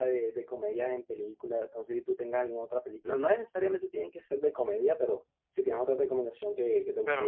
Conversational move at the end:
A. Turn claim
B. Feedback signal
A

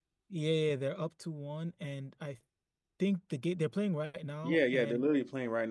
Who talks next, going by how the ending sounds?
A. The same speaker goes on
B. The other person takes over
B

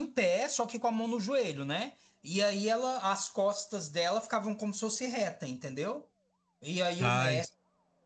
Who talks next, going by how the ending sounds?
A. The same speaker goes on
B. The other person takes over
A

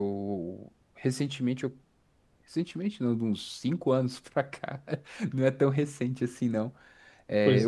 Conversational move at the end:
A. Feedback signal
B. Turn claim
A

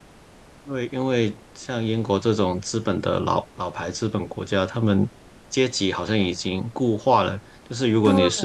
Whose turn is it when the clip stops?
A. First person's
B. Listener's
A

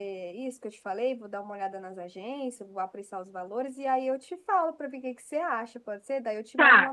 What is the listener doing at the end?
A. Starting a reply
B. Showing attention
A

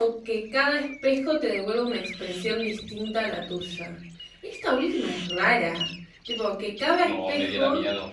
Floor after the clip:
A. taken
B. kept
A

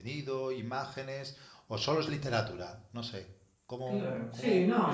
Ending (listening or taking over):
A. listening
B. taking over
B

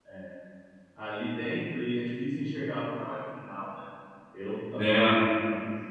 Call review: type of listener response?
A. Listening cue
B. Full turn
A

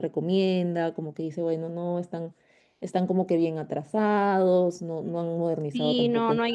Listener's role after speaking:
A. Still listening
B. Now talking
B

